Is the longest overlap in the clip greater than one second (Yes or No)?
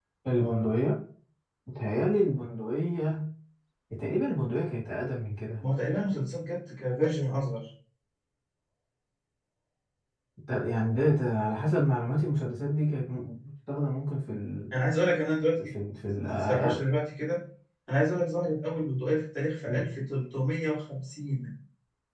No